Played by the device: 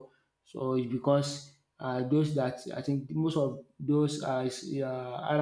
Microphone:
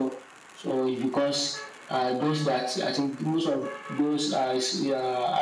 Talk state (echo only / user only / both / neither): echo only